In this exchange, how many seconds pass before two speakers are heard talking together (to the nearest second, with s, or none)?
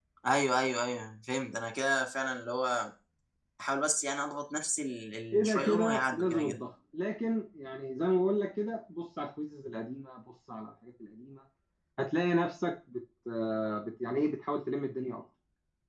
5 s